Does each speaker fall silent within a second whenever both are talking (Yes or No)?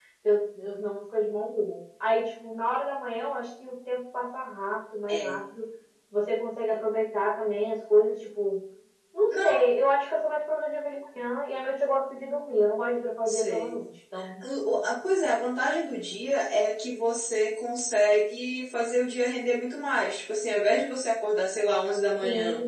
Yes